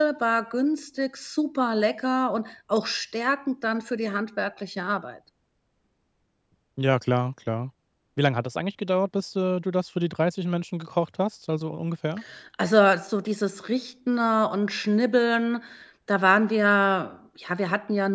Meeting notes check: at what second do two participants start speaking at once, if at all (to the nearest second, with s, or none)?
none